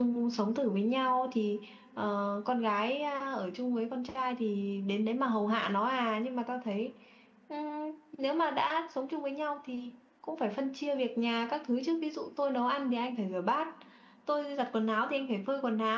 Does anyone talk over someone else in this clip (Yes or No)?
No